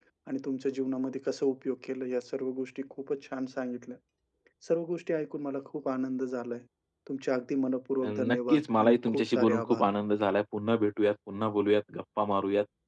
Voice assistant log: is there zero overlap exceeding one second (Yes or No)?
No